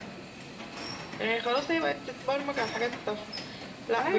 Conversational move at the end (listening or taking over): listening